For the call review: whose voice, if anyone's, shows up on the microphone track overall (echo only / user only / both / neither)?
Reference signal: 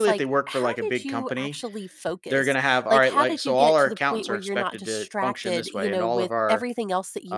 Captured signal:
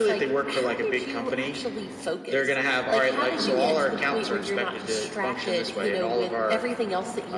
both